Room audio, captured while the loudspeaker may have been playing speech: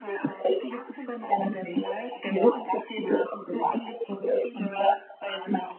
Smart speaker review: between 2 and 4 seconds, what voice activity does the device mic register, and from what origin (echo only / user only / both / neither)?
echo only